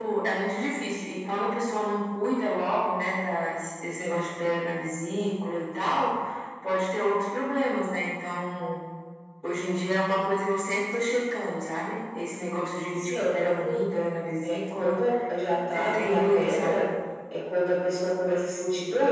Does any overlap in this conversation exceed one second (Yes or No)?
Yes